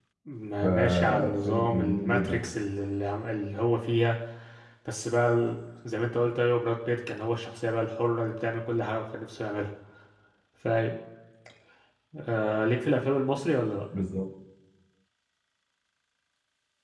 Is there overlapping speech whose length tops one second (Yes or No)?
Yes